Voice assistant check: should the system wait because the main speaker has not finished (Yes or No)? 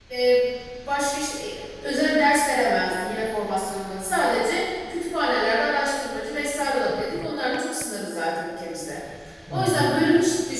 Yes